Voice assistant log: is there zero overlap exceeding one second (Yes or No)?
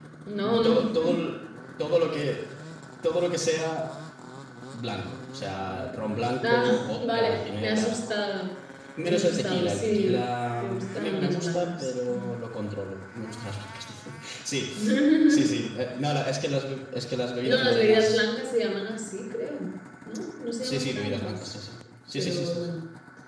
No